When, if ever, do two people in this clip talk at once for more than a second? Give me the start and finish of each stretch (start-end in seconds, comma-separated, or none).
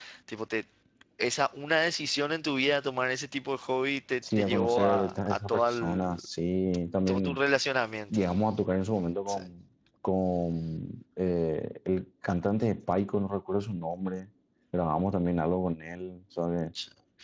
4.4-6.1